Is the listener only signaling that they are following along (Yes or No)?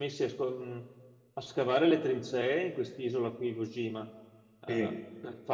Yes